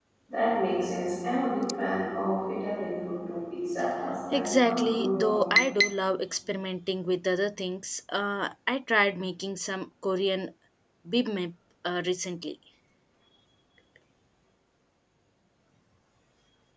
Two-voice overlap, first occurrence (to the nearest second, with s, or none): 4 s